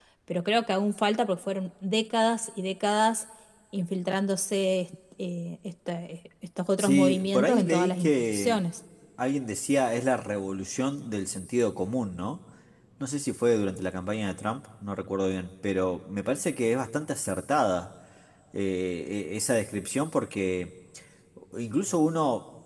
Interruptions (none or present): present